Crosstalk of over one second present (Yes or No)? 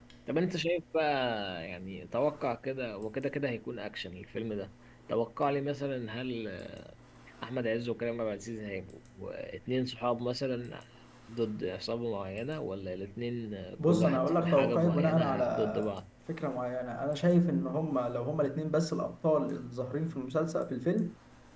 Yes